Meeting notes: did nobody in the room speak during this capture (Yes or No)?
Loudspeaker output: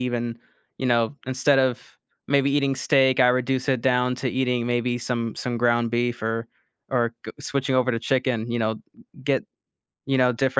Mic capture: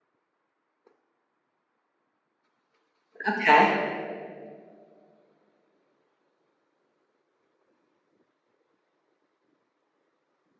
No